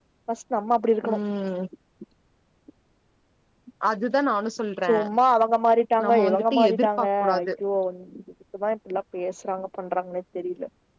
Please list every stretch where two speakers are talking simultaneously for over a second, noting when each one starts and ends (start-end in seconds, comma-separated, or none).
6.0-7.5